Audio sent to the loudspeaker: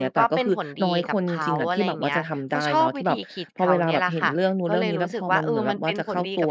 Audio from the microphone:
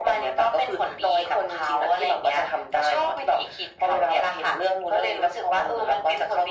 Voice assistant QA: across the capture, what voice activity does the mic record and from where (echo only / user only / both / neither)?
echo only